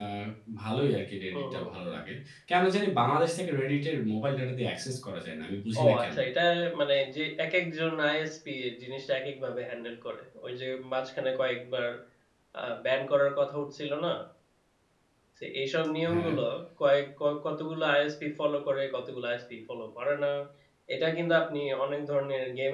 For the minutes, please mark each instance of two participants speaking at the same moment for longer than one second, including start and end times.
none

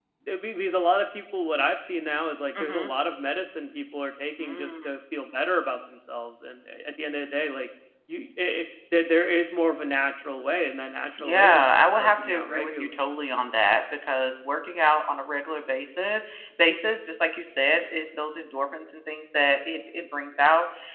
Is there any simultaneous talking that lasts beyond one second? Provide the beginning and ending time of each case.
11.2-13.0

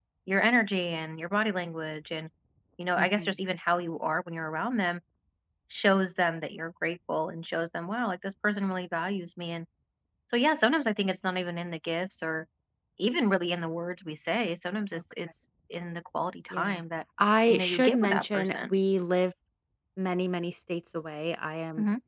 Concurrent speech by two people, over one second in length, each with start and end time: 17.5-18.7

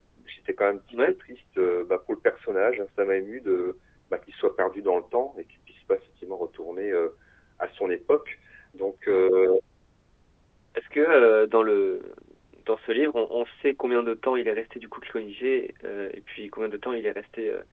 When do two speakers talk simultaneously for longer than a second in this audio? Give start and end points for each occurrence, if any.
none

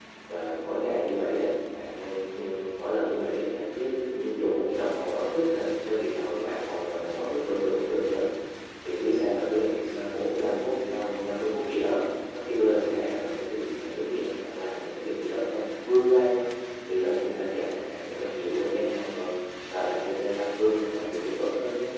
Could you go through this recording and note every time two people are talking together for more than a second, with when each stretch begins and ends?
none

